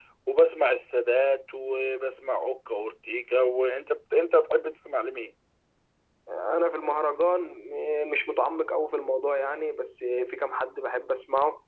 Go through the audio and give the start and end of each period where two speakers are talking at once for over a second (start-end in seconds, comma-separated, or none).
none